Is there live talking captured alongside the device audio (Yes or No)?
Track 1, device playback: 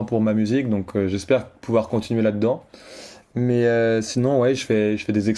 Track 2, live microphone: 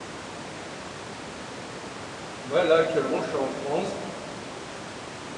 Yes